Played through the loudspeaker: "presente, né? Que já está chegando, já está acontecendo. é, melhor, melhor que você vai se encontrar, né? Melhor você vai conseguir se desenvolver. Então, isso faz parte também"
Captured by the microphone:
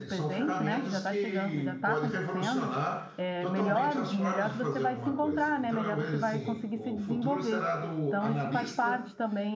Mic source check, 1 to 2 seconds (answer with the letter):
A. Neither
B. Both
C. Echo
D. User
B